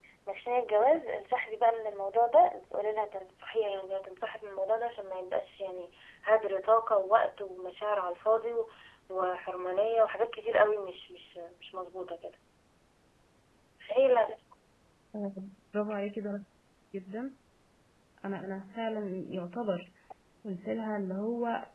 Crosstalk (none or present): none